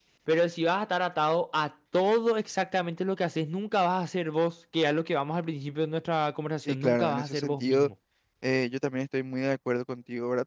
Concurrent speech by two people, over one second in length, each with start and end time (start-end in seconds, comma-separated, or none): 6.7-7.9